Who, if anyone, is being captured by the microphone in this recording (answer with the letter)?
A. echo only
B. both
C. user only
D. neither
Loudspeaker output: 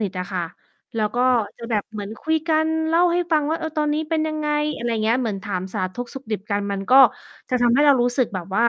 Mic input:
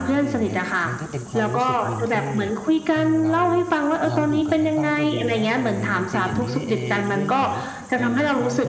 B